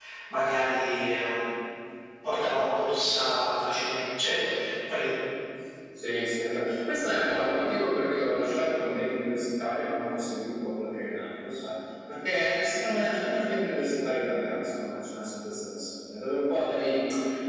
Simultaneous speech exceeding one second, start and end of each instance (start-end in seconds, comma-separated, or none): none